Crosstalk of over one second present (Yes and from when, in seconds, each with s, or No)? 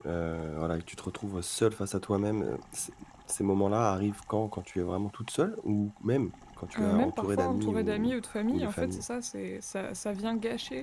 Yes, from 6.7 s